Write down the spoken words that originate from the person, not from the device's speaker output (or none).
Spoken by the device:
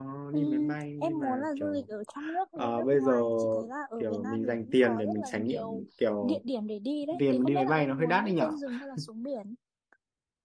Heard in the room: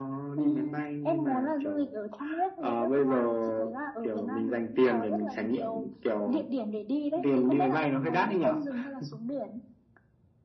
none